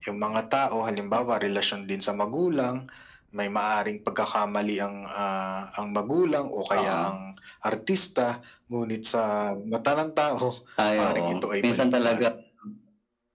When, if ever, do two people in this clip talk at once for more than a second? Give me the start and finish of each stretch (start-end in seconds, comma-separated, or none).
11.0-12.2